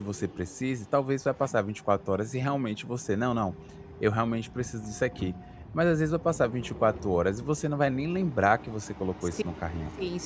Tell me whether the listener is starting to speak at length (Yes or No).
Yes